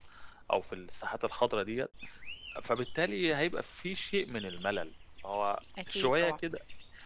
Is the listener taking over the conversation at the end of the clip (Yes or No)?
No